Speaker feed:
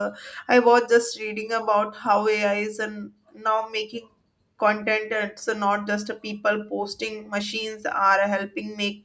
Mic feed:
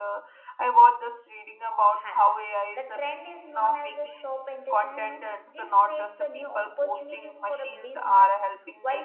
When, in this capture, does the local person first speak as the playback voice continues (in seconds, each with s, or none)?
2.0 s